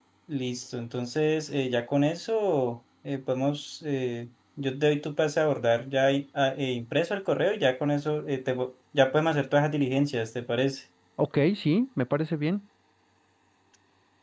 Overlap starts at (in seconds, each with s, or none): none